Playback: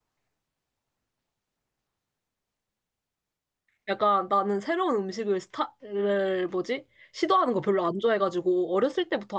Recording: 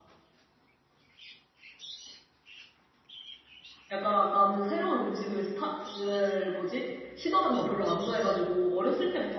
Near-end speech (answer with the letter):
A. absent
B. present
A